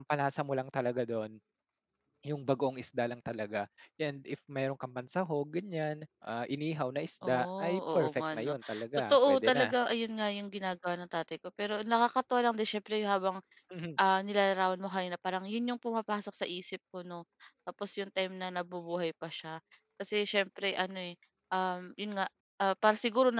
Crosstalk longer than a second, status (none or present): present